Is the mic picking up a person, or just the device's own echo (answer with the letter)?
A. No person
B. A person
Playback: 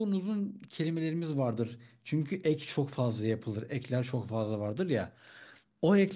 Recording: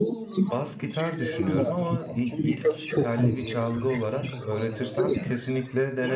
B